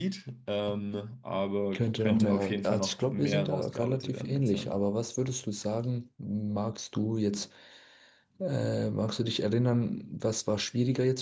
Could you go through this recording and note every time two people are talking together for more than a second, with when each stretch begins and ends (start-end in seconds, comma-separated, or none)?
1.7-4.7